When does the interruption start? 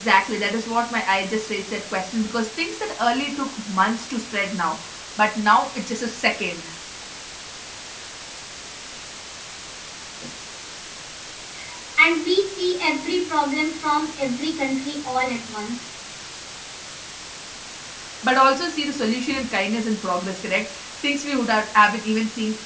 none

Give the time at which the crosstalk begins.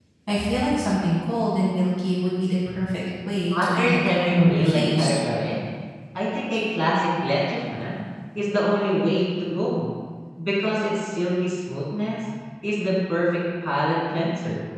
3.5 s

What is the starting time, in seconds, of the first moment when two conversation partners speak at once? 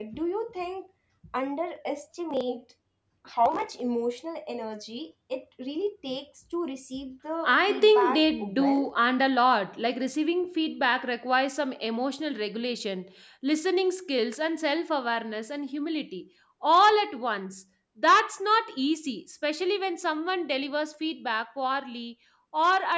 7.4 s

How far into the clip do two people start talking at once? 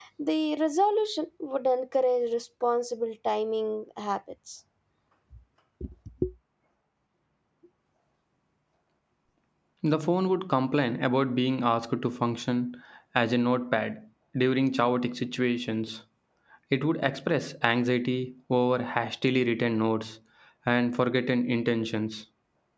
none

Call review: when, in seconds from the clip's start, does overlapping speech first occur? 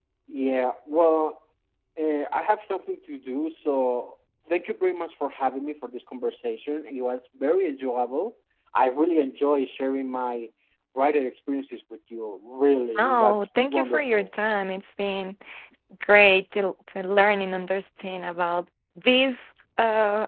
12.9 s

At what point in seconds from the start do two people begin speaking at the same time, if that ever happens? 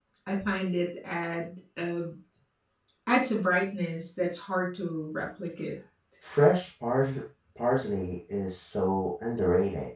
none

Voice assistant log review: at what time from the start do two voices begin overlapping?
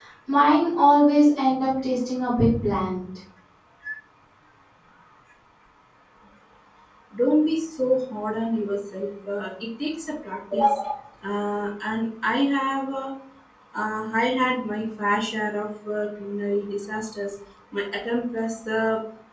none

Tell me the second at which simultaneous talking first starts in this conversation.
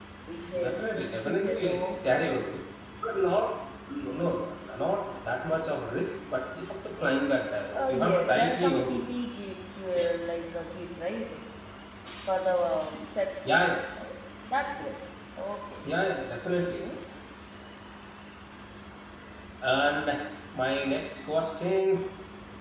0.6 s

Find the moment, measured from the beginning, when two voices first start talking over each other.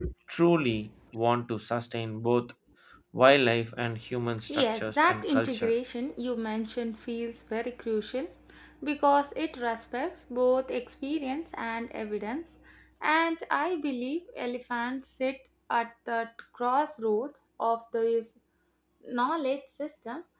4.5 s

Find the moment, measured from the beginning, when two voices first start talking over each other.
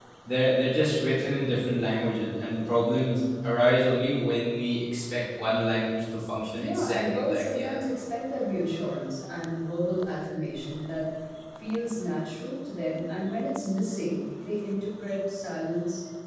6.5 s

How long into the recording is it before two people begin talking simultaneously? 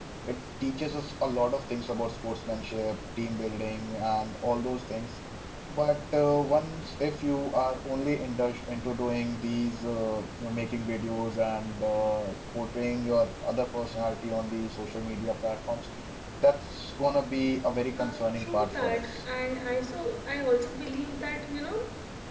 18.0 s

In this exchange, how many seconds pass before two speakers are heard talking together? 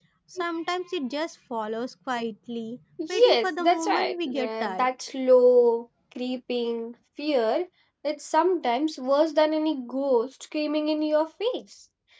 3.0 s

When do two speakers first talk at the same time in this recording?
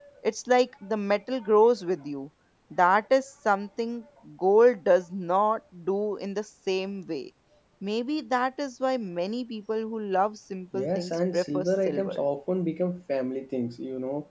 10.7 s

